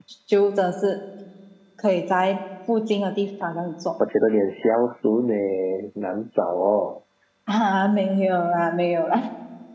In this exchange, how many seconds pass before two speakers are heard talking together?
none

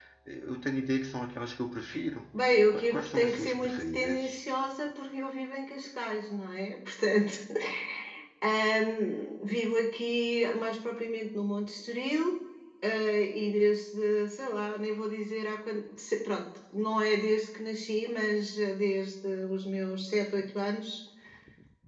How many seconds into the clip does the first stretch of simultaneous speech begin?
2.3 s

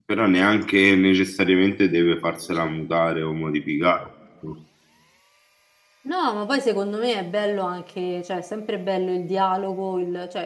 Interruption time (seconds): none

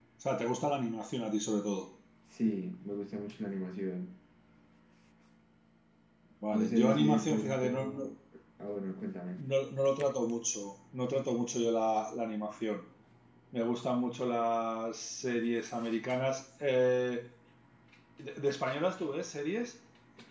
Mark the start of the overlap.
6.5 s

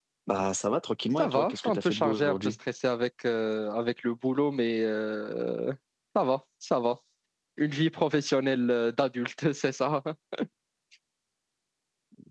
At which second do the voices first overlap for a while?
1.2 s

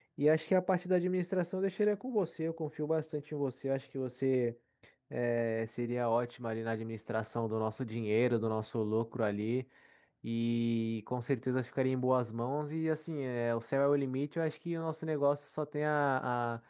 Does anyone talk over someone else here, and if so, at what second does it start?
none

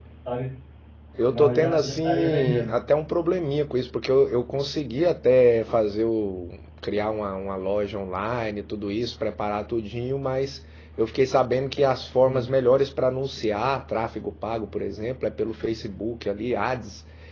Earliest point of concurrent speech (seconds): 1.3 s

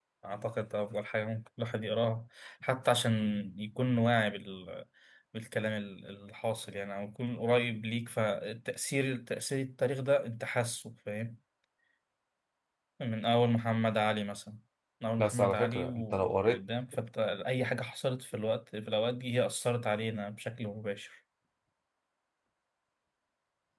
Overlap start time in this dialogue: 15.2 s

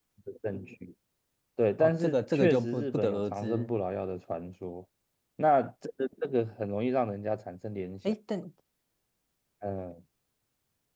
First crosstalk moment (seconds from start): 1.8 s

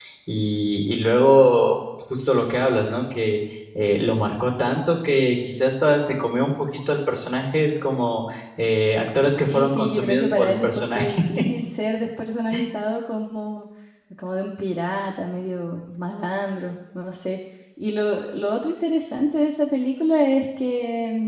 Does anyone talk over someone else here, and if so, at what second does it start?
9.5 s

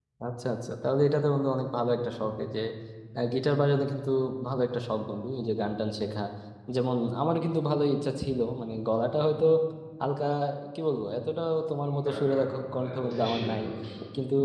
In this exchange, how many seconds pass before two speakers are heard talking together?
12.0 s

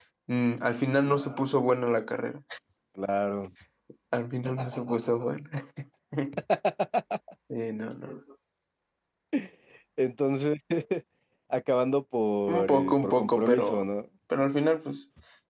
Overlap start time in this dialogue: 12.5 s

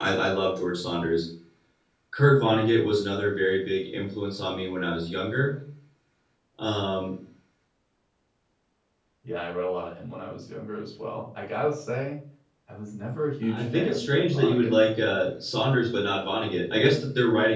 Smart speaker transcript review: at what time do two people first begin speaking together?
13.5 s

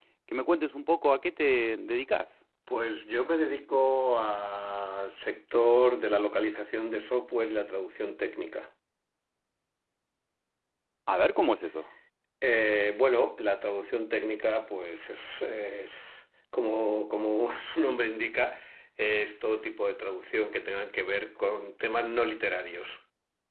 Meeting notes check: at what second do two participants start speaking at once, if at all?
none

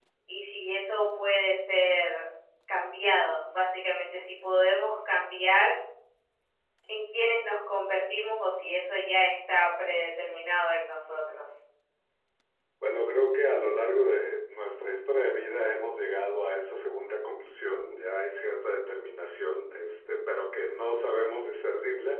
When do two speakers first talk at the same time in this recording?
none

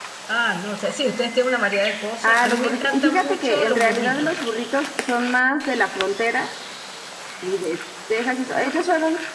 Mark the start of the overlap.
2.2 s

